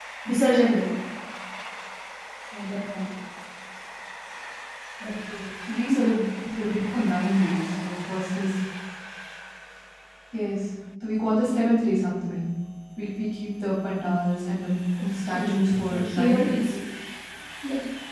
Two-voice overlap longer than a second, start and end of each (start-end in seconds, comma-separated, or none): 15.2-16.7